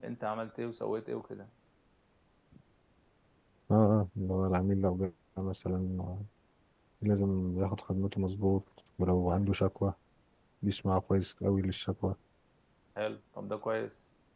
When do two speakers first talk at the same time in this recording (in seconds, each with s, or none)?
none